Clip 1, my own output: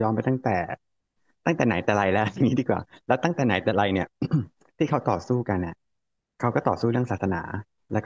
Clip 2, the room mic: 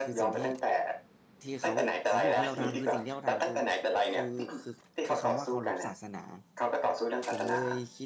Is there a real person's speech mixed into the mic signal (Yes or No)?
Yes